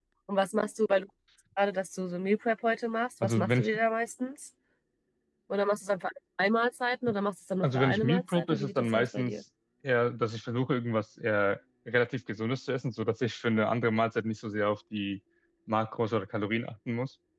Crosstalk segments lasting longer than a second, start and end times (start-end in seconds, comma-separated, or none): 7.6-9.3